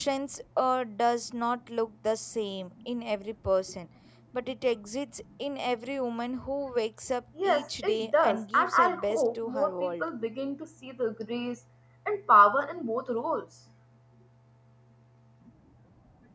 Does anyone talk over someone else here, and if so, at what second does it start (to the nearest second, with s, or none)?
7 s